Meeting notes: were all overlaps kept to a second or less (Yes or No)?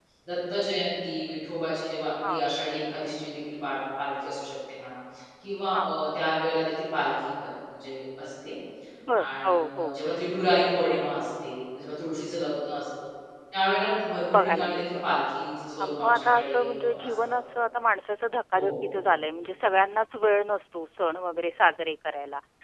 No